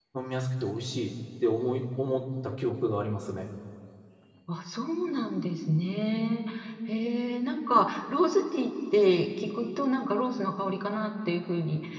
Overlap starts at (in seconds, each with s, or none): none